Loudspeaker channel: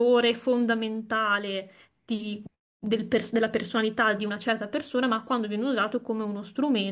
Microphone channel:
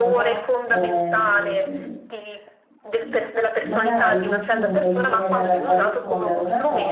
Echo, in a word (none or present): present